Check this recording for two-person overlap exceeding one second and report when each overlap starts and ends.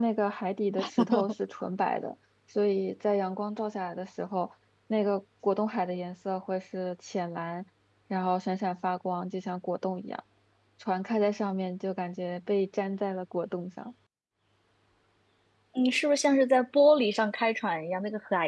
none

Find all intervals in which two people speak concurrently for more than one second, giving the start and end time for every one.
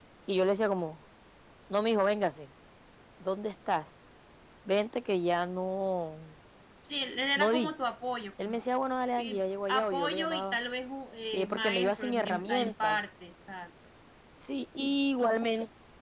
9.2-10.6, 11.3-13.0

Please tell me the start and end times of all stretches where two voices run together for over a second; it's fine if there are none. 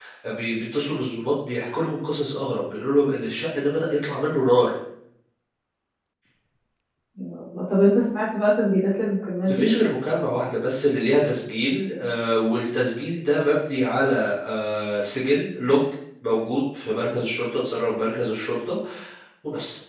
none

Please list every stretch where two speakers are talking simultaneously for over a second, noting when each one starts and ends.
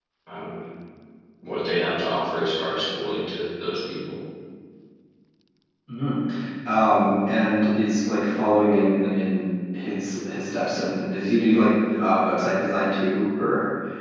none

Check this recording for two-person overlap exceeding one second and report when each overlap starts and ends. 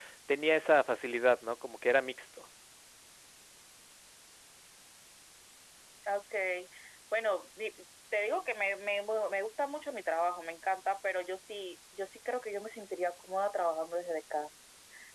none

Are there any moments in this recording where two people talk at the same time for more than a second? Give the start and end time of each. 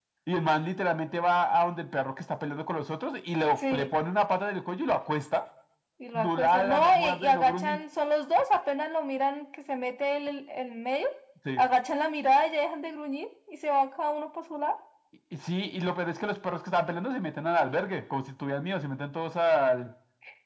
6.1-7.8

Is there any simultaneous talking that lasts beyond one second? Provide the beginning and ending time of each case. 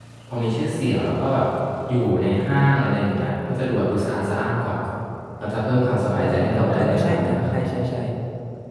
6.2-7.6

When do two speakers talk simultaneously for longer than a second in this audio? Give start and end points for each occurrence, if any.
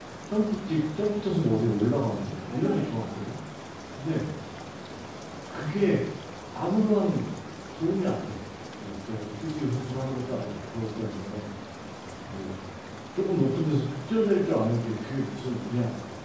2.1-3.3

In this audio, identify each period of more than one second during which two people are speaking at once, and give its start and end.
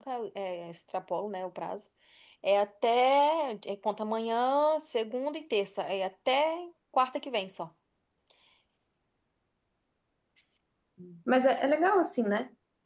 none

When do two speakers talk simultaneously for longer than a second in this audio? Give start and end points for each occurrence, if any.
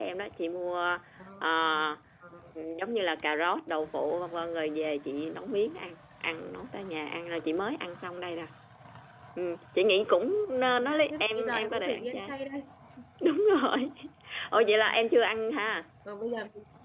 10.6-12.3

